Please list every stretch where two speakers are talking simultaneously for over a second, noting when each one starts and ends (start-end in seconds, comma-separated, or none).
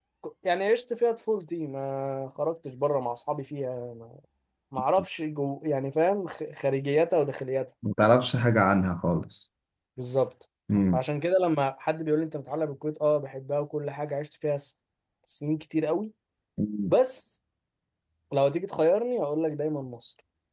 none